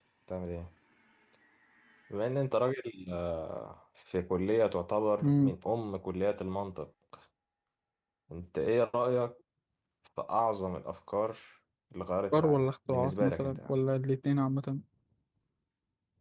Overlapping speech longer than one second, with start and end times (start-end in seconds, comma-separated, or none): 12.3-13.8